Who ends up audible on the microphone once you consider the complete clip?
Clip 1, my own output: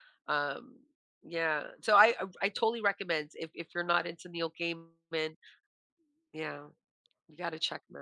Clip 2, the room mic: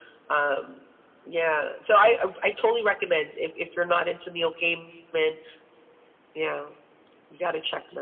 echo only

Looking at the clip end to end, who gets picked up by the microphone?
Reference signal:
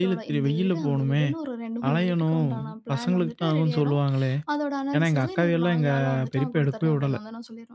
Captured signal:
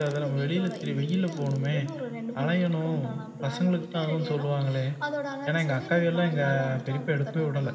echo only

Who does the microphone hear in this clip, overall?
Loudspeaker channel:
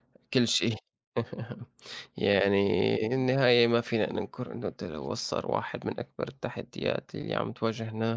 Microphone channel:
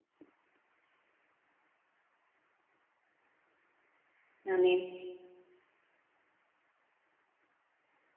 user only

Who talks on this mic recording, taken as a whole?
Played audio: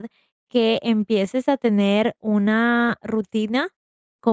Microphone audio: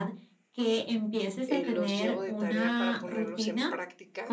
both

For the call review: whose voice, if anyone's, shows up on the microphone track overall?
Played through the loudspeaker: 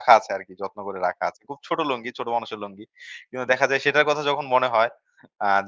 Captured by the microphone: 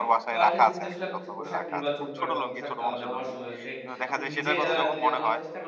both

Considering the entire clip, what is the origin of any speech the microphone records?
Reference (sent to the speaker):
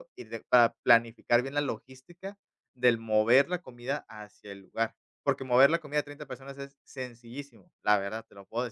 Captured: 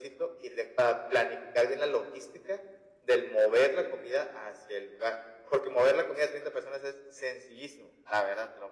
echo only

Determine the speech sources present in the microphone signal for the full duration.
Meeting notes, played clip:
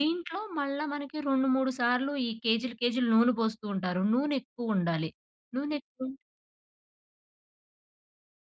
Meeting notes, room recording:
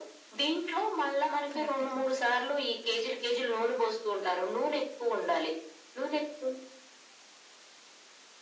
both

